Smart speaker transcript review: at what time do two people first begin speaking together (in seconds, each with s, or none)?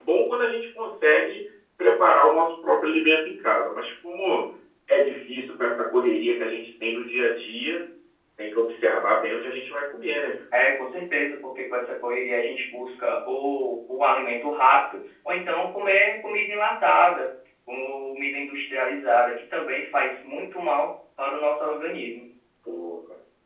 none